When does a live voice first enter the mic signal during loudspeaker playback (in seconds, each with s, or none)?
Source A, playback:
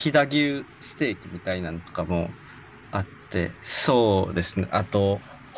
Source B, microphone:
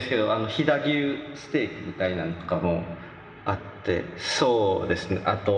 none